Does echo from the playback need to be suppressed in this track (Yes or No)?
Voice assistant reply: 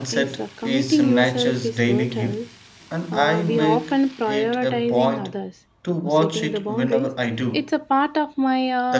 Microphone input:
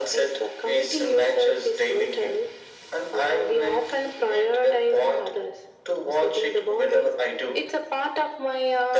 Yes